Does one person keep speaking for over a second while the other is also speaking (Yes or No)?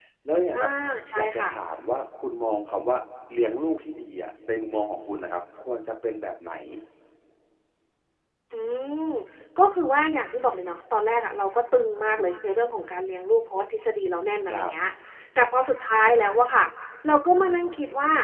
No